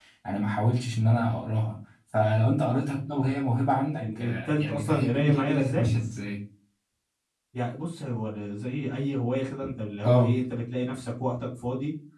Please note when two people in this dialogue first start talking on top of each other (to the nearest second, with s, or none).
4 s